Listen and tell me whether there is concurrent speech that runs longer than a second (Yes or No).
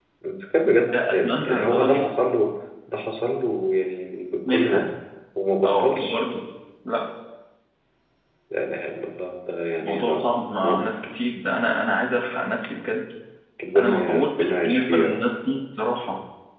Yes